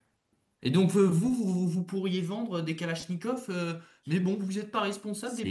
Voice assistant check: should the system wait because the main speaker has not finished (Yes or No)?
No